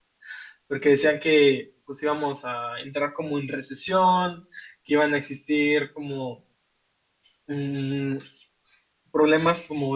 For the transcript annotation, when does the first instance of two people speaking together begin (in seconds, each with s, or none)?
none